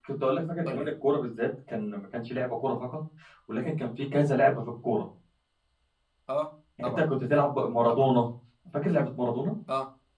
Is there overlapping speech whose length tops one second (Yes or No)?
No